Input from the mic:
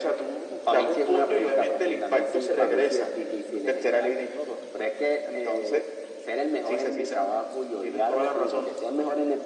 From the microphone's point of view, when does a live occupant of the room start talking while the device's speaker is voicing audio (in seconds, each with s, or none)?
none